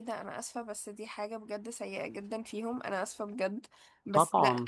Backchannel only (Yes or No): Yes